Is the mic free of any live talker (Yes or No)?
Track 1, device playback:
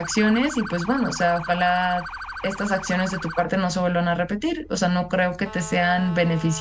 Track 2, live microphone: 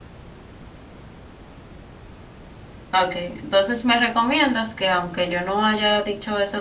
No